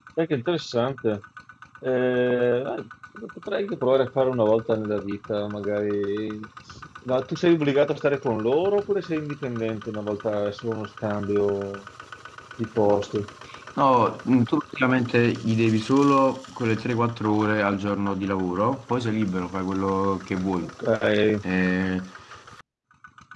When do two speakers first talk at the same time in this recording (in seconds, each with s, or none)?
none